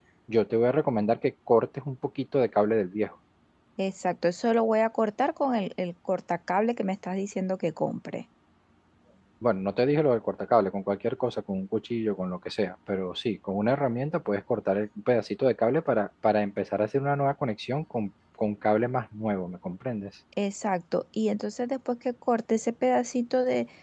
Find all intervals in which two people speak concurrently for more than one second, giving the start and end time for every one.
none

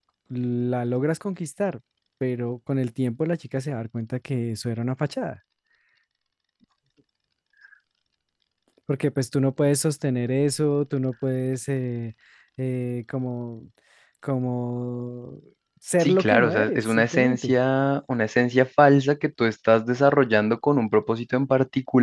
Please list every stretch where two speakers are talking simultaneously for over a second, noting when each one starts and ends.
16.0-17.5

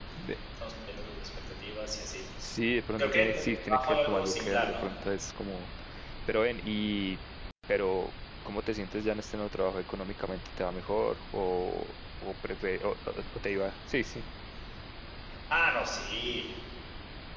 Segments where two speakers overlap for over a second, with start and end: 3.0-4.9

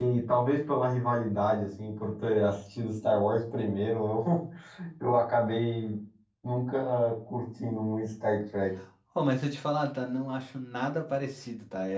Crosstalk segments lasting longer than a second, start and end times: none

